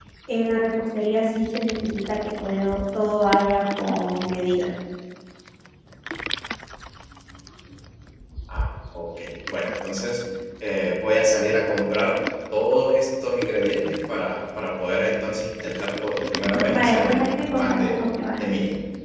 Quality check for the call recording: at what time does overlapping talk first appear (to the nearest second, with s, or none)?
17 s